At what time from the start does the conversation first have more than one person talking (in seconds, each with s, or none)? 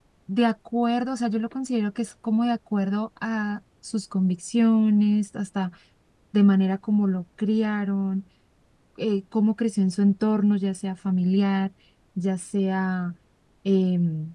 none